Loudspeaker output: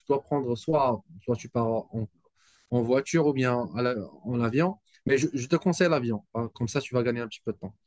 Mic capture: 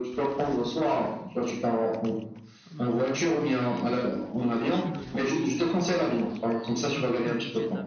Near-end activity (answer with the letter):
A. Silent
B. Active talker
B